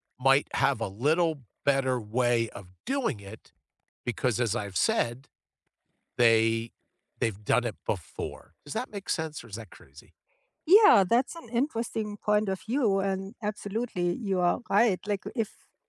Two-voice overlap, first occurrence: none

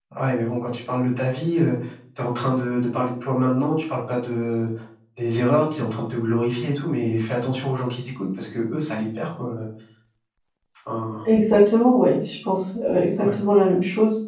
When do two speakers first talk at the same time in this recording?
none

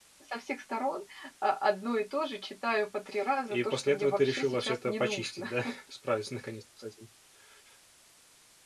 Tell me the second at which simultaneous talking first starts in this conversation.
3.5 s

